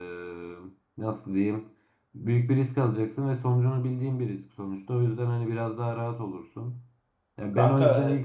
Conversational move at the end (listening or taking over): taking over